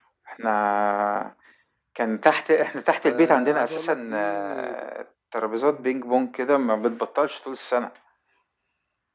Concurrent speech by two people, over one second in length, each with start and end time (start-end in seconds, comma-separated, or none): 3.0-4.7